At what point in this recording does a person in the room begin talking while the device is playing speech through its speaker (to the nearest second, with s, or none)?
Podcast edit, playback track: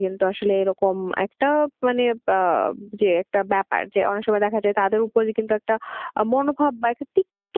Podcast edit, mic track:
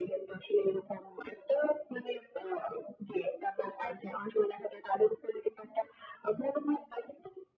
none